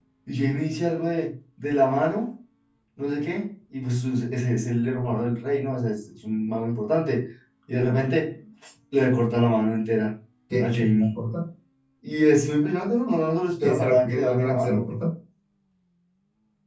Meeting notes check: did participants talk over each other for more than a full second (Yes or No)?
Yes